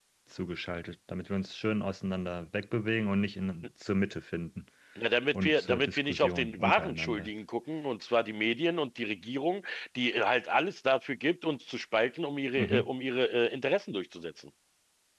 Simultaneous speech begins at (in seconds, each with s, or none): 5.3 s